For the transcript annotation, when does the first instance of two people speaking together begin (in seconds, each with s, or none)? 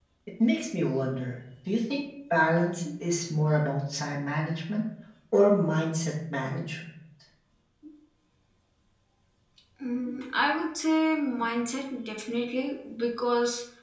none